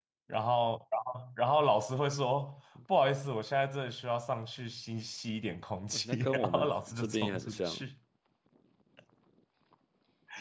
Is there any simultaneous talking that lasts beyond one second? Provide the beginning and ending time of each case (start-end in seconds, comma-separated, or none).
5.9-7.8